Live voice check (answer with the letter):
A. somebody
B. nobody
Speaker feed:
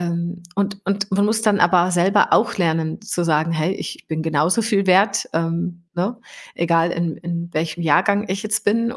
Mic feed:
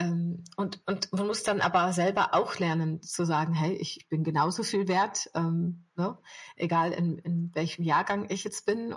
B